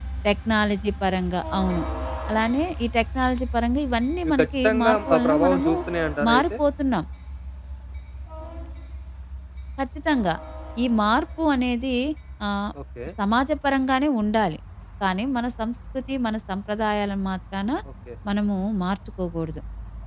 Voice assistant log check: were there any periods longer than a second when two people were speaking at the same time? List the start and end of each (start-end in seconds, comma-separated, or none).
4.2-5.7